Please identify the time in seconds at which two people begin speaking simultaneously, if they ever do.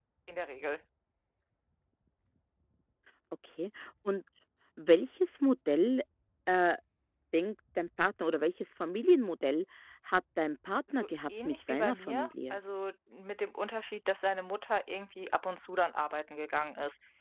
10.9 s

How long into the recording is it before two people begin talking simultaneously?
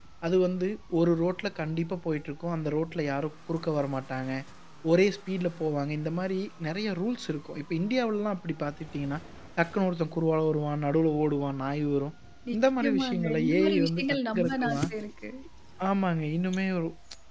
12.6 s

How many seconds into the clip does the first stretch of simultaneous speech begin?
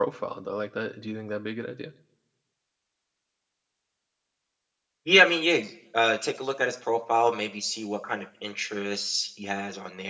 none

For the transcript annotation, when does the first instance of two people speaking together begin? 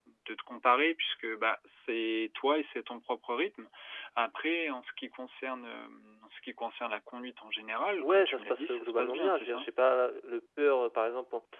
8.0 s

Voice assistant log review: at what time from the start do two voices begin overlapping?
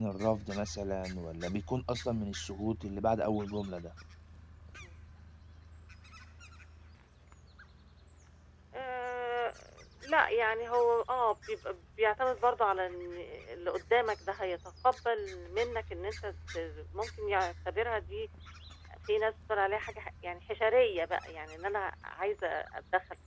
none

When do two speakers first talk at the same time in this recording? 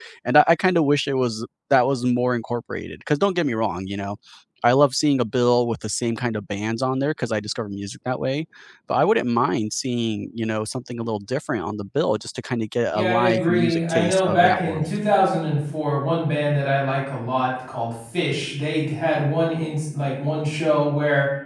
12.9 s

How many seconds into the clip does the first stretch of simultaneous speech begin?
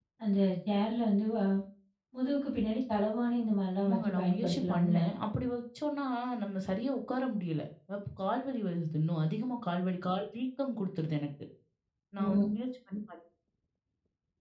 3.8 s

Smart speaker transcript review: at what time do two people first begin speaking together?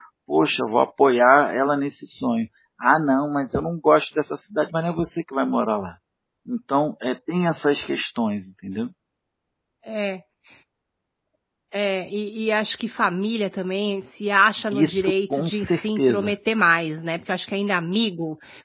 14.7 s

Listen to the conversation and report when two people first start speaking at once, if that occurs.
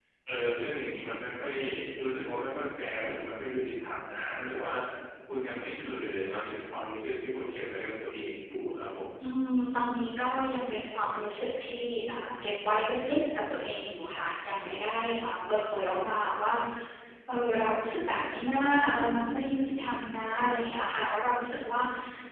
none

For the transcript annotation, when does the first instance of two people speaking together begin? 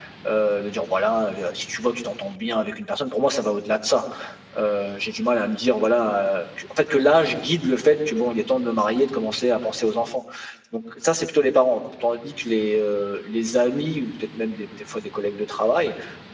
none

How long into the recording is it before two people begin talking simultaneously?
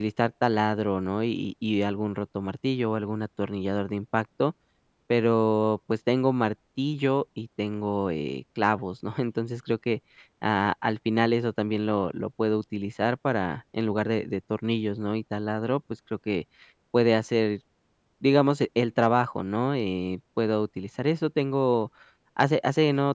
none

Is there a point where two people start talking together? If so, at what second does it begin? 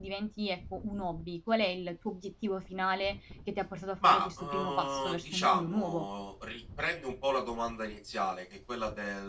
4.0 s

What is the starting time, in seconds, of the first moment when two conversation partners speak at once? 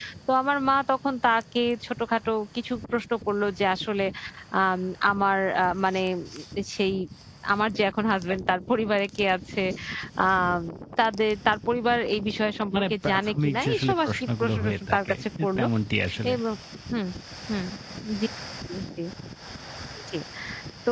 12.7 s

